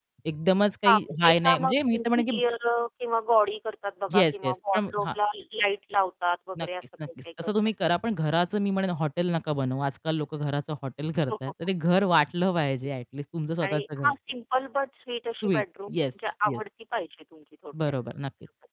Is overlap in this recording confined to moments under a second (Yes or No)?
No